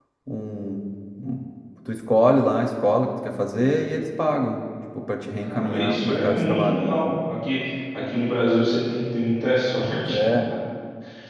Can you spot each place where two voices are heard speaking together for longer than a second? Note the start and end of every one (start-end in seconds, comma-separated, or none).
5.4-6.8